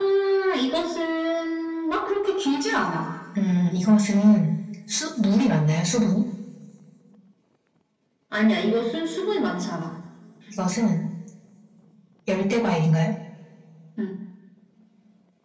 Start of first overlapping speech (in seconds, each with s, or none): none